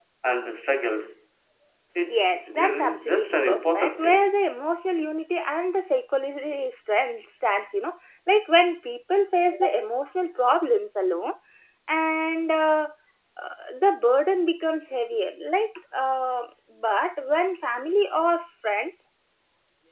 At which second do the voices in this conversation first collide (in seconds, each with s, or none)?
2.1 s